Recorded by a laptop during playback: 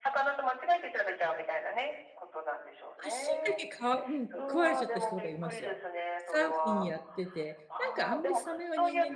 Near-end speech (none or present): present